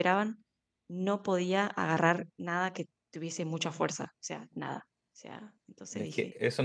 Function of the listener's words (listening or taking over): taking over